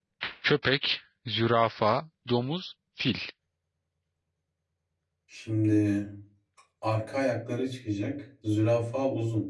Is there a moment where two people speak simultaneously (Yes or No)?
No